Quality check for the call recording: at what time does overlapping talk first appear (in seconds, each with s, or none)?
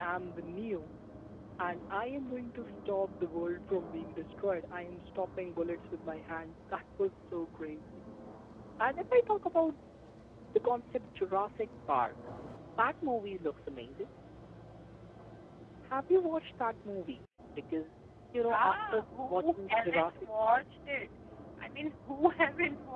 18.5 s